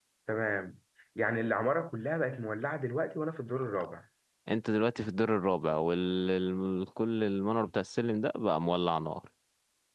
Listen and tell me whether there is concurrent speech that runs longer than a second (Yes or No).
No